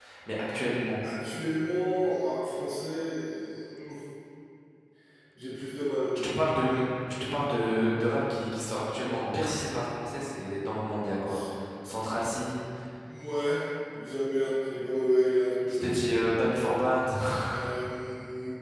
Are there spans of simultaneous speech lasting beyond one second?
No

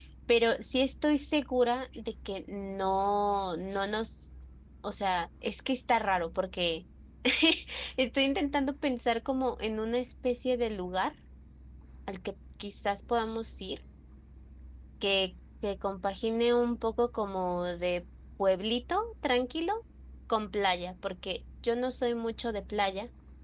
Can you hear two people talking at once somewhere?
No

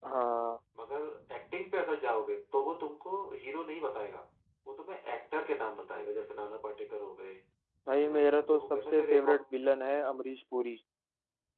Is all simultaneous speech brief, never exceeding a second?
No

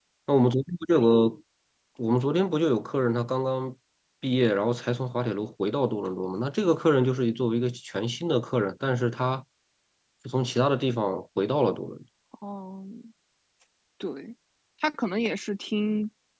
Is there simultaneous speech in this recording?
No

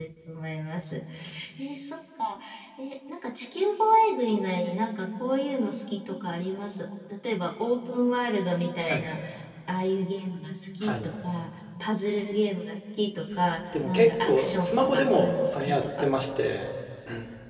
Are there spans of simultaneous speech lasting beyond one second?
Yes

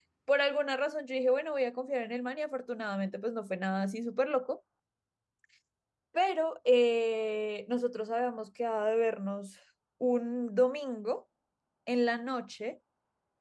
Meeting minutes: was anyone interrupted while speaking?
No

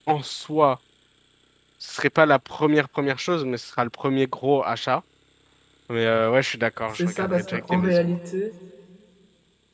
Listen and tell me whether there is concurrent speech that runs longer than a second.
Yes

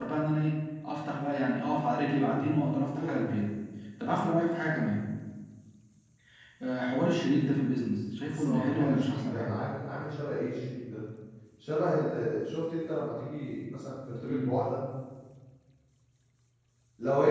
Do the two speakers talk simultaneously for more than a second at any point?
Yes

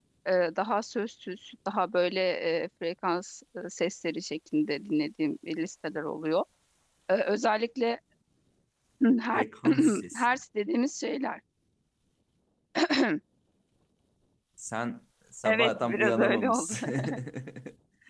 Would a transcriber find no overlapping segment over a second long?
No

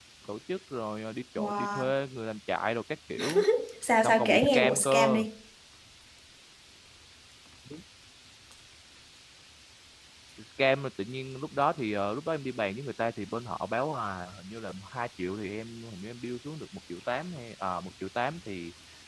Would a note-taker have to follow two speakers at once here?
Yes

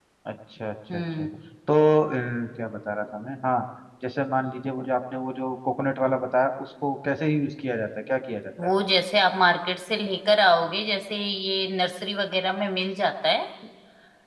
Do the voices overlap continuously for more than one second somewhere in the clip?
No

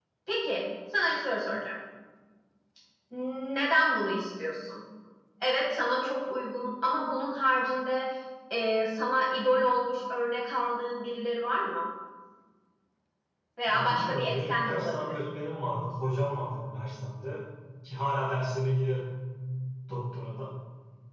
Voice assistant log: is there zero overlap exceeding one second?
No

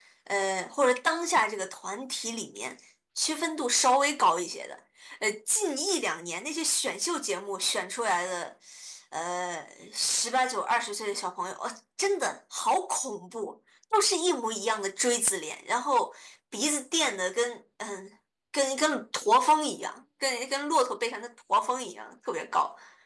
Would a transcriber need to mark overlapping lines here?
No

